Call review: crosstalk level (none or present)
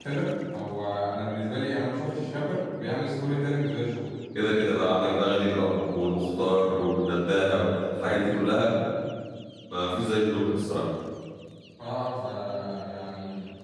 none